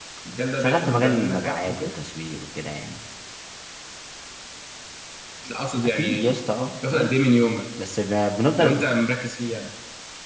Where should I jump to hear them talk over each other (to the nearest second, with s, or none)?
1 s